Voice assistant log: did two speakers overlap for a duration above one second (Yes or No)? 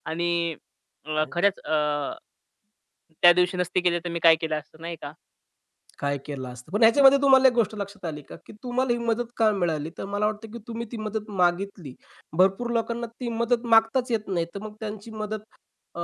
No